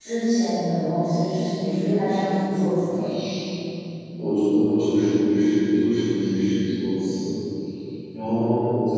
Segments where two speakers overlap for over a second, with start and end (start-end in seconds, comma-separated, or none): none